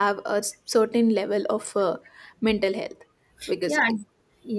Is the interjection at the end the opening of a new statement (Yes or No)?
Yes